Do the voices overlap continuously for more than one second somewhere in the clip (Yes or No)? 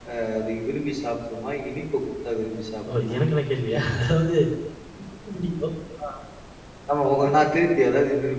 No